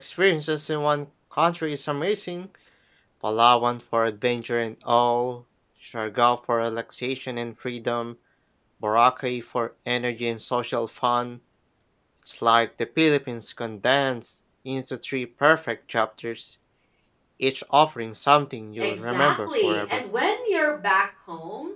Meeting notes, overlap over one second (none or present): present